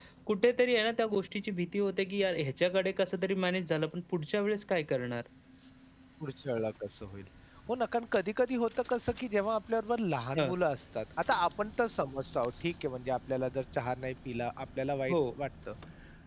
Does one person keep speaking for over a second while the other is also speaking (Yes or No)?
No